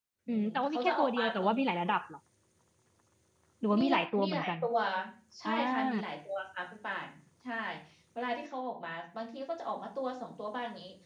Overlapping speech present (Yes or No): Yes